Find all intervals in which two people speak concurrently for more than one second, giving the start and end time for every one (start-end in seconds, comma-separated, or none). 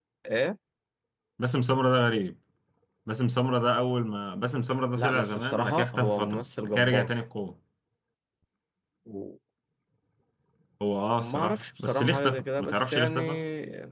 5.0-7.1, 11.2-13.2